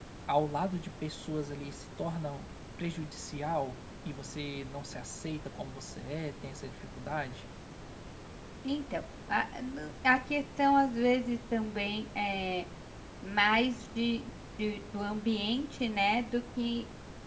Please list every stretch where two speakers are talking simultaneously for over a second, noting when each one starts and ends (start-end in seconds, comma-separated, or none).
none